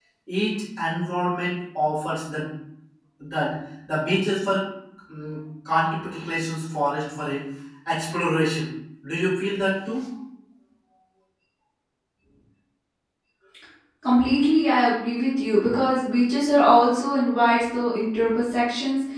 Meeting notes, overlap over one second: none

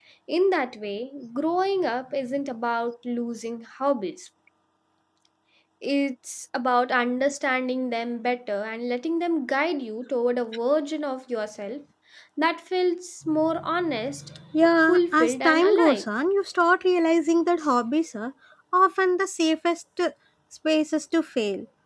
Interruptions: present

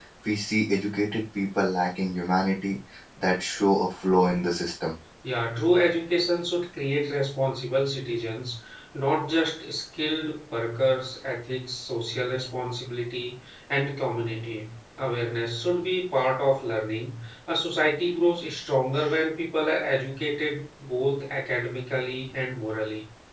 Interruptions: none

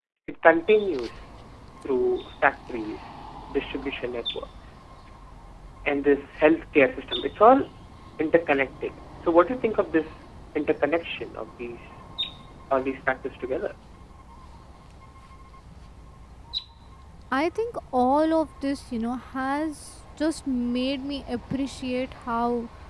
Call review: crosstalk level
none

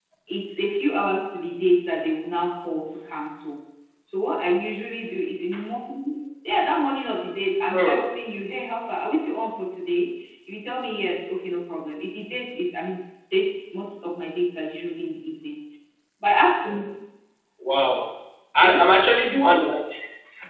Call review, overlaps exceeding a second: none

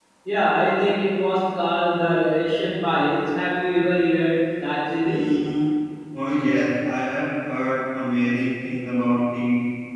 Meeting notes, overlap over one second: none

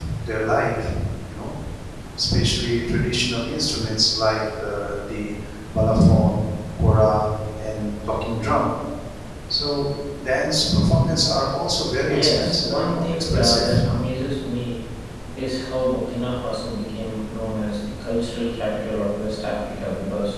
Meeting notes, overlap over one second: present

